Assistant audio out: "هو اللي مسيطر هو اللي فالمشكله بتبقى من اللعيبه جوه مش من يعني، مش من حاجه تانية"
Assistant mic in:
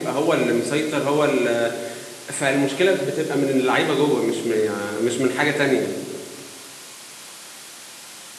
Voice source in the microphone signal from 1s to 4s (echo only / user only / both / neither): echo only